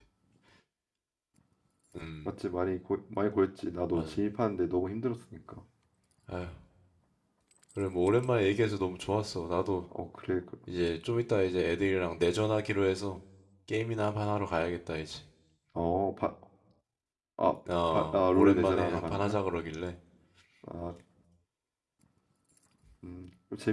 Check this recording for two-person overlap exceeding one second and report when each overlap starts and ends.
17.9-19.4

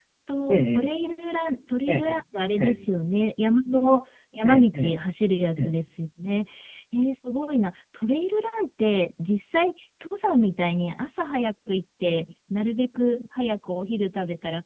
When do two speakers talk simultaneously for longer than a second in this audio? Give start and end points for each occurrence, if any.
none

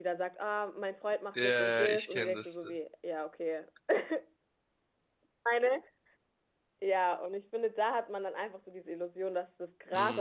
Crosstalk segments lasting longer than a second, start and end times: 1.3-2.6

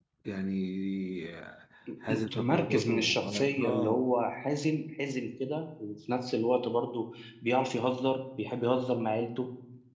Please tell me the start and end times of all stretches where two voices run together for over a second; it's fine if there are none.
2.1-4.0

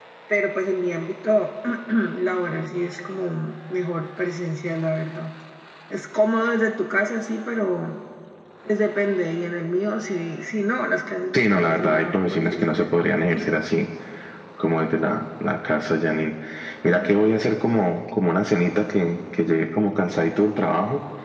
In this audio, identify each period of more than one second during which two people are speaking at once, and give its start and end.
11.3-12.8

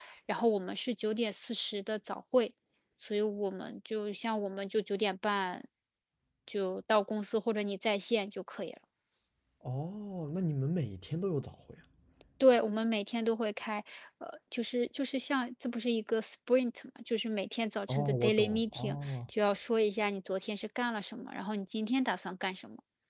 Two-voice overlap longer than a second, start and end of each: 17.9-19.1

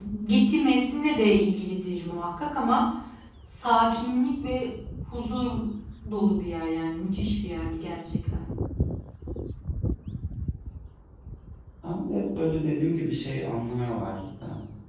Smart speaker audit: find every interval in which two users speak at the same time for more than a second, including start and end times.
none

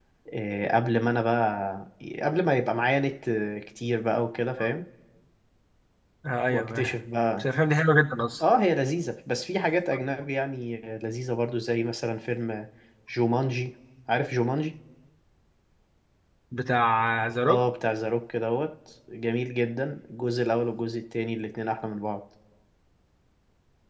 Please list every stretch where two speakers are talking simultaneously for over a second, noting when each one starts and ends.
none

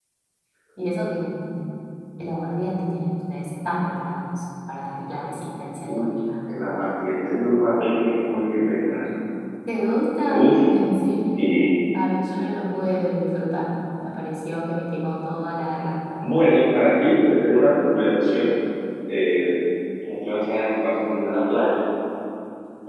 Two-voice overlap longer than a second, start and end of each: none

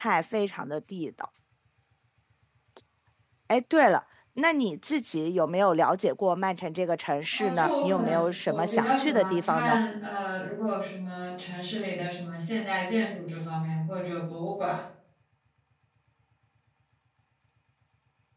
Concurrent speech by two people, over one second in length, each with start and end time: 7.3-9.8

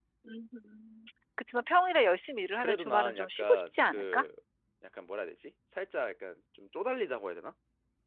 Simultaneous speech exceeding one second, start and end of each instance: 2.6-4.2

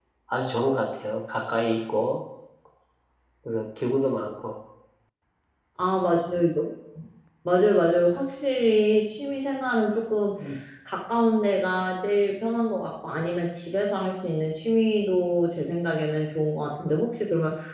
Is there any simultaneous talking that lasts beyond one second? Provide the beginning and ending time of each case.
none

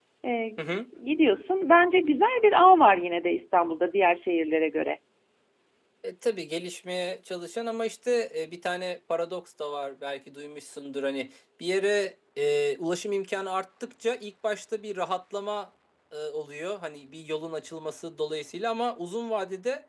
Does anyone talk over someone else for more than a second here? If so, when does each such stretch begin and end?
none

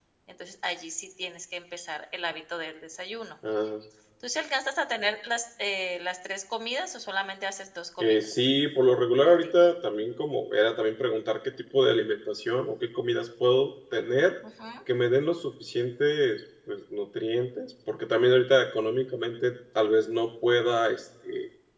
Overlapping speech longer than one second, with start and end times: none

